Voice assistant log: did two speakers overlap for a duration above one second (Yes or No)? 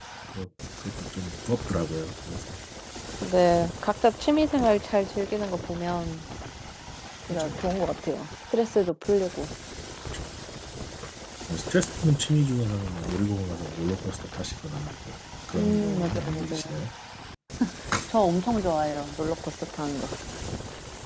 Yes